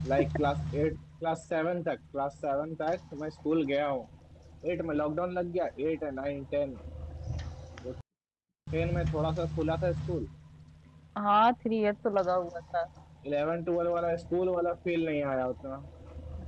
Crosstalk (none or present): none